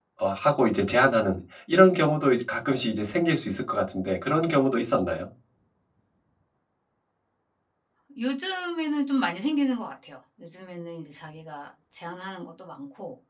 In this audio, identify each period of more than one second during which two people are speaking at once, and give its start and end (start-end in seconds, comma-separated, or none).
none